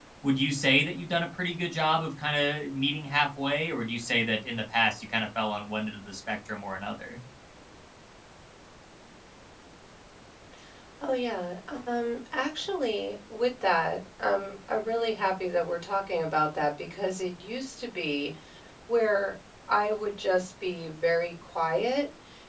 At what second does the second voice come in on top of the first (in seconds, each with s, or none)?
none